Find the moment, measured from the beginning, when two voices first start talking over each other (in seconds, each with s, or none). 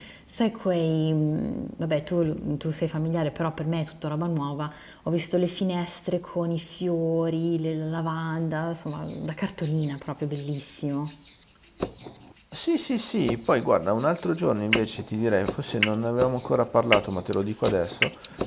none